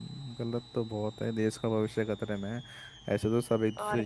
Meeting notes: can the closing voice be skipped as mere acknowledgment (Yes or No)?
Yes